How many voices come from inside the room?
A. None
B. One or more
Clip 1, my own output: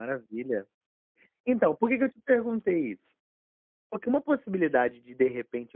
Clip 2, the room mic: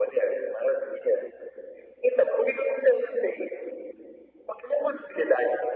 A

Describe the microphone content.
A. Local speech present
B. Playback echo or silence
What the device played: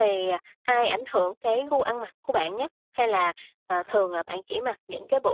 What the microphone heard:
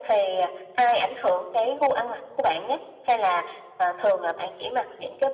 B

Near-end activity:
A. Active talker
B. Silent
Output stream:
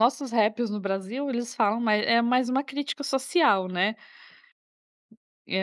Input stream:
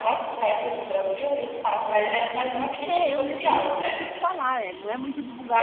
A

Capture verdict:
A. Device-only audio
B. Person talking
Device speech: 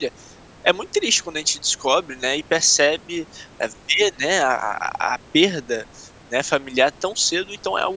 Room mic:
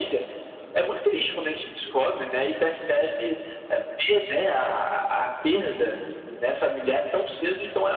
A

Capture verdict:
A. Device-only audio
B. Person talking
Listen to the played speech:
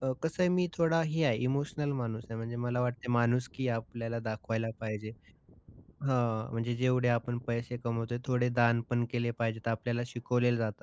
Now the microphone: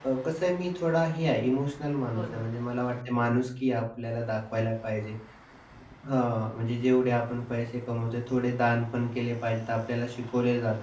B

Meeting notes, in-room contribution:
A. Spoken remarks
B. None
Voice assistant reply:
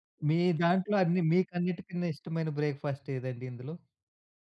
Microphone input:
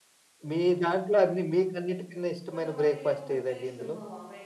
A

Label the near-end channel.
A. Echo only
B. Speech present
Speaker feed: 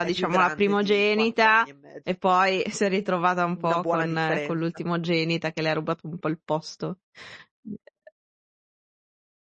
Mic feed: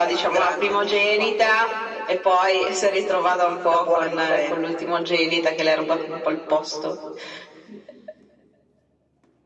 A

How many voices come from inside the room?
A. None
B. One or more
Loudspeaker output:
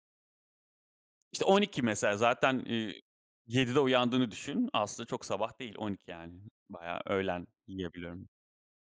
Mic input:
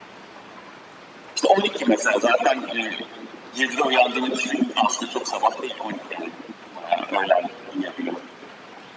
A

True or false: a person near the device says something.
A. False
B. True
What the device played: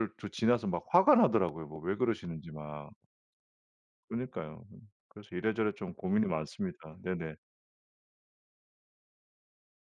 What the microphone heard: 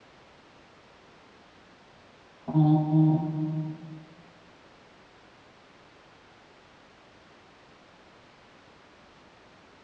B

